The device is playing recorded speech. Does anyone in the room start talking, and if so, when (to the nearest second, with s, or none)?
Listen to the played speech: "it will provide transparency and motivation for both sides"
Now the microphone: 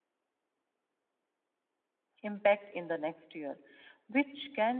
2 s